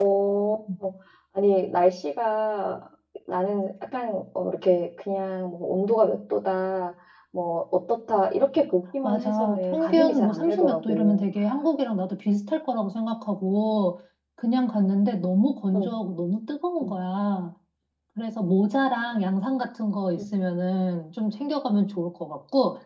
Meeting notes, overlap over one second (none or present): present